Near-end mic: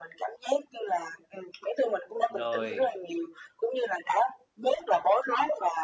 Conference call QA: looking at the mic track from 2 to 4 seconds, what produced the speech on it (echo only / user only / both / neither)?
both